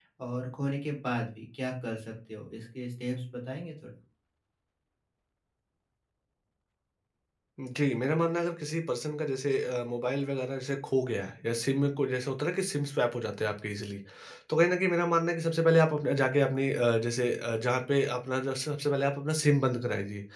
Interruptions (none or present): none